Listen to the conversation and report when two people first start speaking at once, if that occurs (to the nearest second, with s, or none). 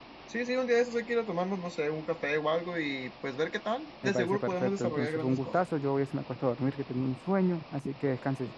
4 s